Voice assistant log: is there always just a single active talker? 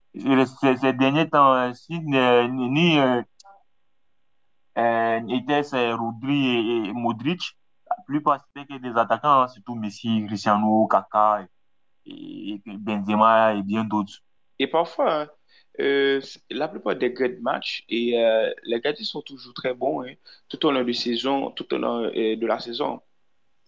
Yes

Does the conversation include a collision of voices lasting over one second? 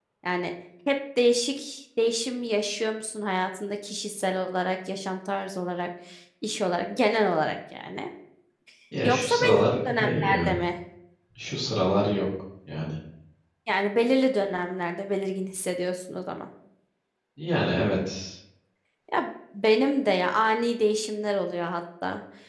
Yes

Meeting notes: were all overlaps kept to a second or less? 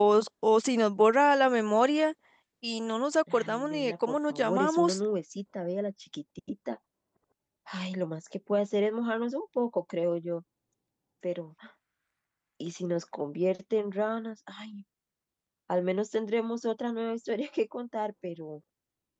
No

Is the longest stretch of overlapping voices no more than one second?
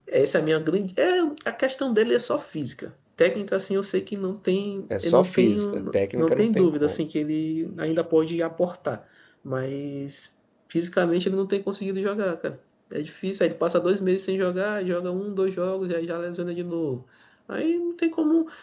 No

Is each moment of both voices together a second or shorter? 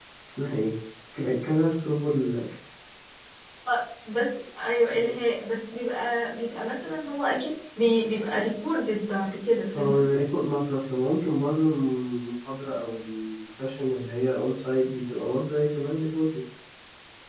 Yes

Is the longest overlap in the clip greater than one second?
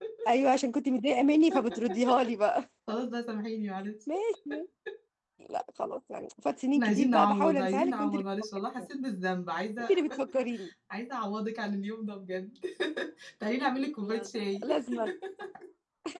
Yes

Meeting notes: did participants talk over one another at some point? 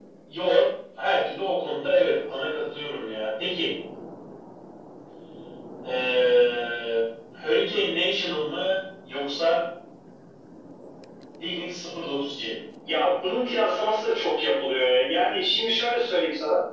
No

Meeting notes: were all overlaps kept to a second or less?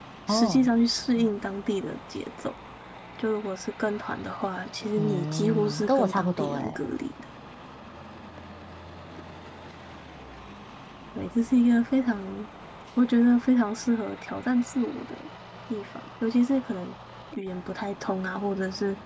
No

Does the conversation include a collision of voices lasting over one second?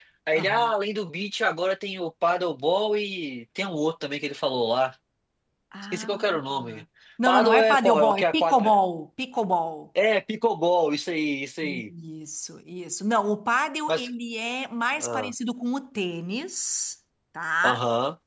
Yes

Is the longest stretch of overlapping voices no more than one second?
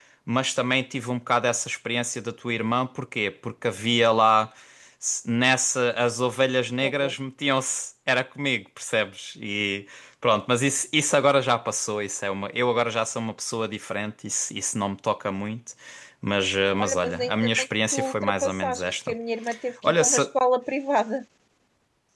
No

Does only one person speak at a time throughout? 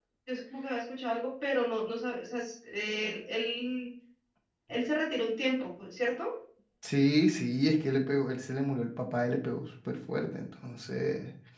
Yes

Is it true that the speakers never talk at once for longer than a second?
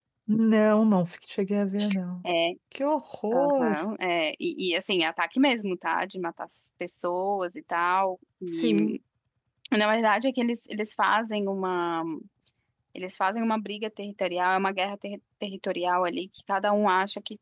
Yes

